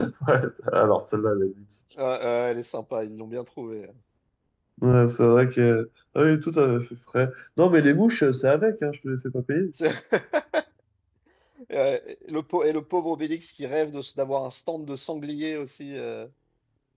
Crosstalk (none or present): none